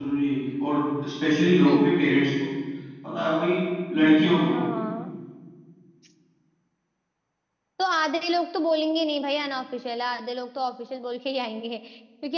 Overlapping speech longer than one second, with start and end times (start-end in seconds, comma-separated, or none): none